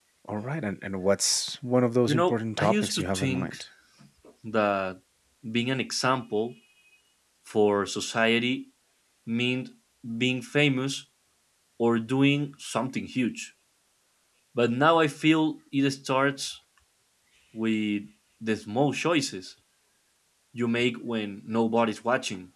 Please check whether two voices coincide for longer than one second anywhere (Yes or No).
Yes